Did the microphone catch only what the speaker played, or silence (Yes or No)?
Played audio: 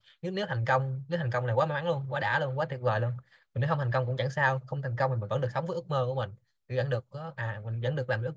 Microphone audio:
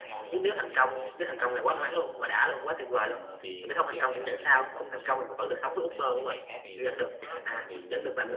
No